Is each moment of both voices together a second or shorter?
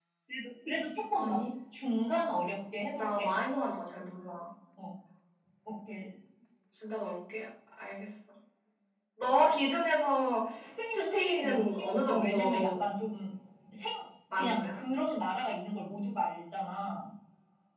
No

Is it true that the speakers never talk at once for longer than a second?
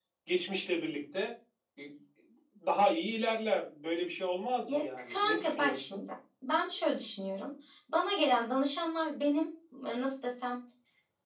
No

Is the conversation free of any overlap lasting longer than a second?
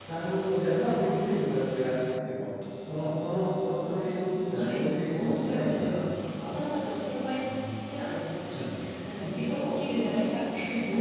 No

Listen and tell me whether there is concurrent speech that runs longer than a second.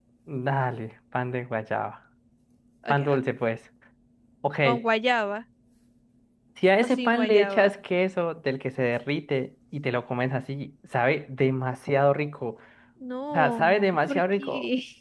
Yes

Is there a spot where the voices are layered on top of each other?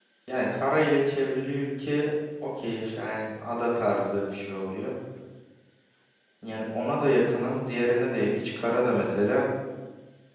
No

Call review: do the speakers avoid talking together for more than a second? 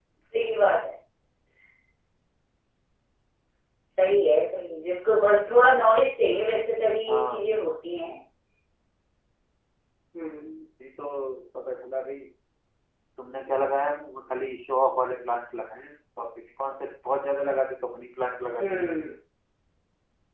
Yes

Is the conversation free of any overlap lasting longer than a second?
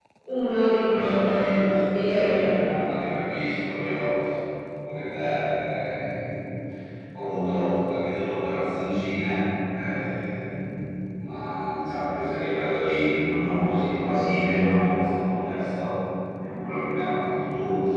No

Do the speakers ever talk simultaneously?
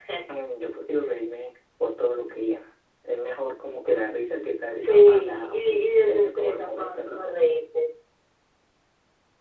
Yes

